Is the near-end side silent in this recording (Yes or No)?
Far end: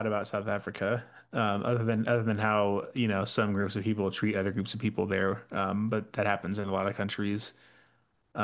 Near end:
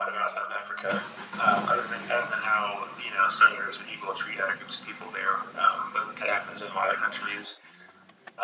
Yes